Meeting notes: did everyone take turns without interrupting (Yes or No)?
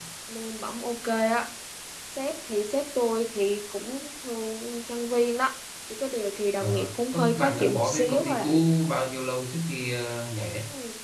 No